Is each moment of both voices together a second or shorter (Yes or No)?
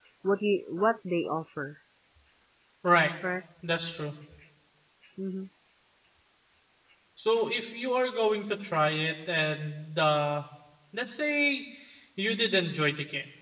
Yes